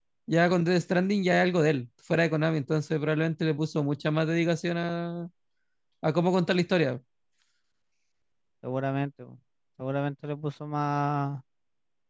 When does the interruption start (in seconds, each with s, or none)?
none